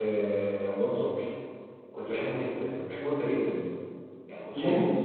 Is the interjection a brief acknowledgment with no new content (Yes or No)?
Yes